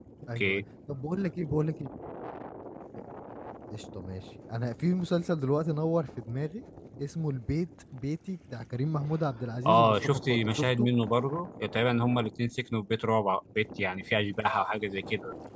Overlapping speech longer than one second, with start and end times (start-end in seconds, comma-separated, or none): 9.6-10.9